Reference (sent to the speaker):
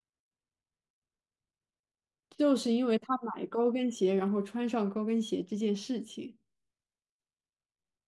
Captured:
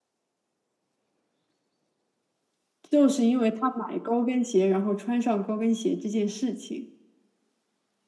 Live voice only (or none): none